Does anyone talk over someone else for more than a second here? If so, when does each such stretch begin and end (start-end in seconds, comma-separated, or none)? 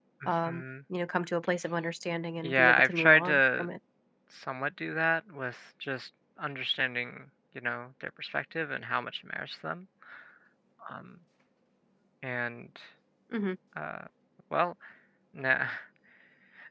2.4-3.7